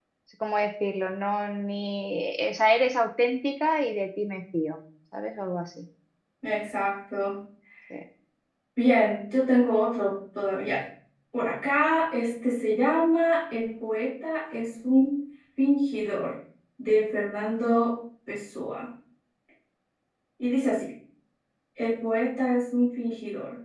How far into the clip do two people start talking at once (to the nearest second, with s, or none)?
none